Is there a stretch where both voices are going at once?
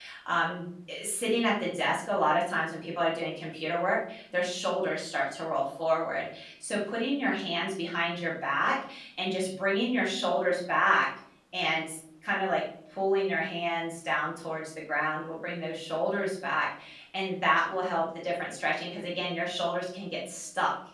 No

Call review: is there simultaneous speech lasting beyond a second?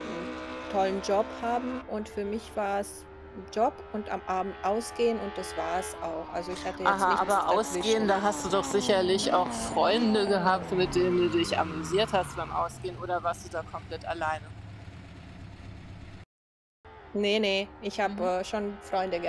Yes, from 6.8 s

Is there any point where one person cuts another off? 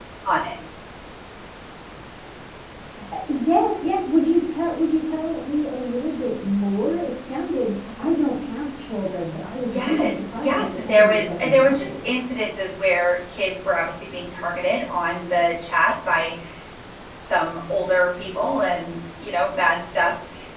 Yes, from 9.7 s

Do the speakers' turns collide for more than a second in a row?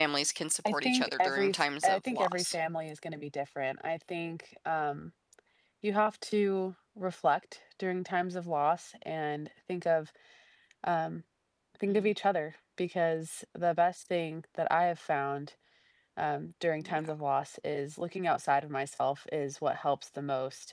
Yes, from 0.6 s

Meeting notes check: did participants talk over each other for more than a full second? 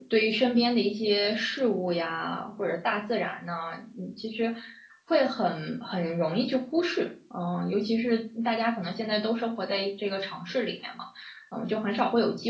No

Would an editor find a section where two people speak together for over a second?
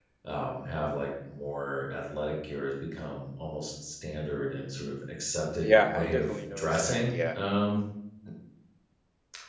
Yes, from 5.6 s

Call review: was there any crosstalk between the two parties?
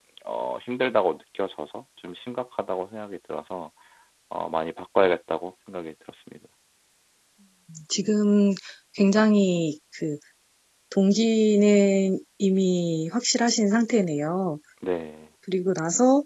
No

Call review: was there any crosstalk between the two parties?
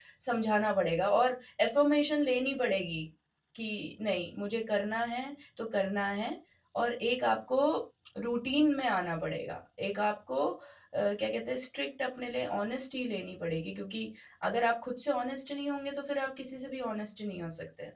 No

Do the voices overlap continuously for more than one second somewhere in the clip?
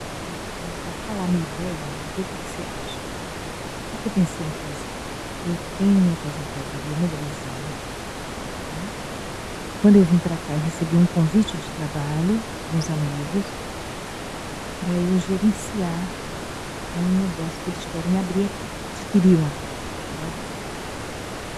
No

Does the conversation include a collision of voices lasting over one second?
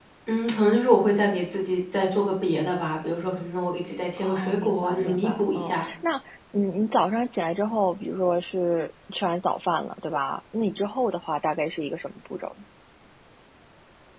Yes, from 4.2 s

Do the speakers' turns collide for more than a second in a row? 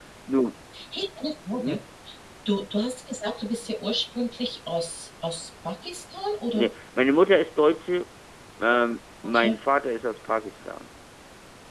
No

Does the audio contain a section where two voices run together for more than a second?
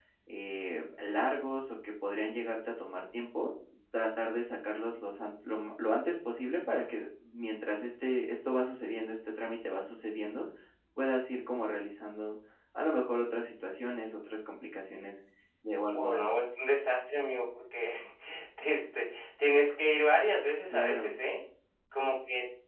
No

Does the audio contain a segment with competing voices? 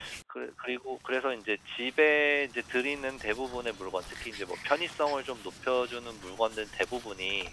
No

